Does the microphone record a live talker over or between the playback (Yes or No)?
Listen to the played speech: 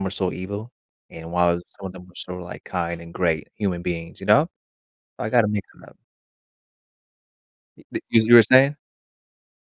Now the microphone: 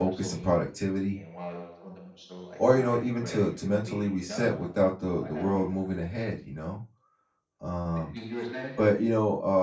Yes